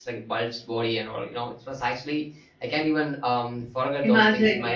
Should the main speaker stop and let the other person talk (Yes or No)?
No